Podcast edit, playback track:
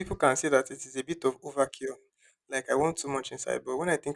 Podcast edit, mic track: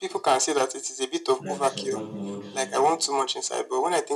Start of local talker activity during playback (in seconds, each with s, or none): 1.4 s